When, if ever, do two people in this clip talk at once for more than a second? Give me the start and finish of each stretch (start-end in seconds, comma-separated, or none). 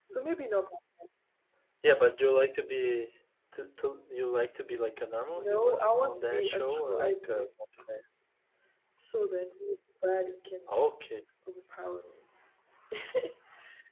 5.3-7.4